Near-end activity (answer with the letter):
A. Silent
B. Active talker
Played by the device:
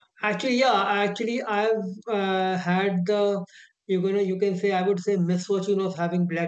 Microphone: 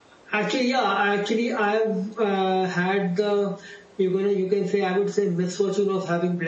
A